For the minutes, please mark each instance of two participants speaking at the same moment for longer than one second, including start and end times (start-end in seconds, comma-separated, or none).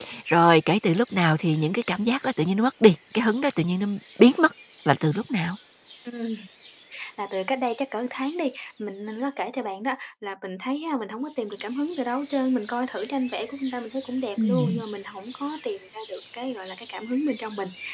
none